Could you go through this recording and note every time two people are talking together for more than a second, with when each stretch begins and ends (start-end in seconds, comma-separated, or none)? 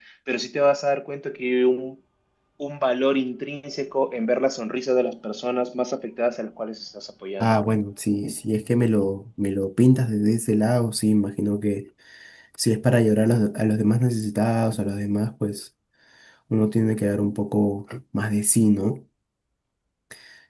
none